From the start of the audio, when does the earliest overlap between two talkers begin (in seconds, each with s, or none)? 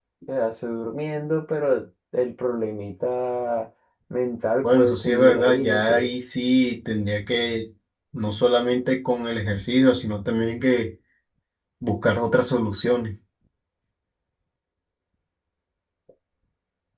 4.6 s